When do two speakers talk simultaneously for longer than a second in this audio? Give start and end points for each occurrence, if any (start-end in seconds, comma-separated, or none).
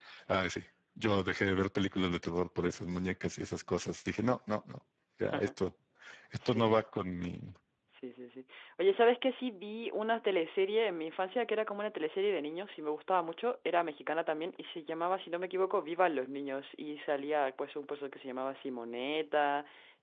none